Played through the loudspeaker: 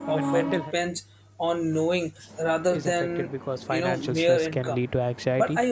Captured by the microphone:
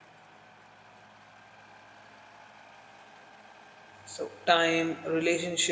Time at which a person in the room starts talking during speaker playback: 4.0 s

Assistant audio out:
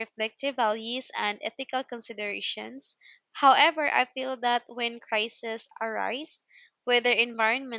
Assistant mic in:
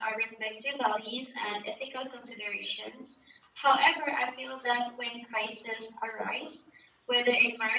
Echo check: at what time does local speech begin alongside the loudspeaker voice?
none

